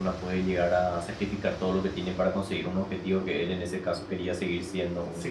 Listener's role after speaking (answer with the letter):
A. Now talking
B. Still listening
A